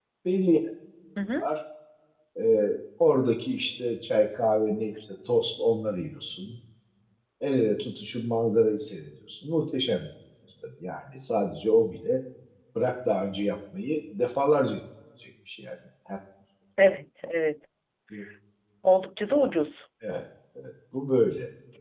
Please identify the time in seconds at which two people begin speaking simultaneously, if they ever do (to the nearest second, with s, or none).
none